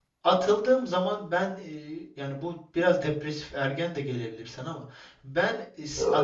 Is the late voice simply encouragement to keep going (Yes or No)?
Yes